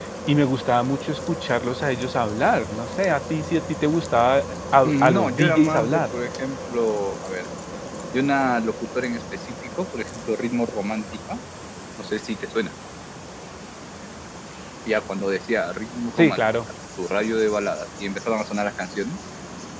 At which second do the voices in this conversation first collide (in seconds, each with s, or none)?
4.8 s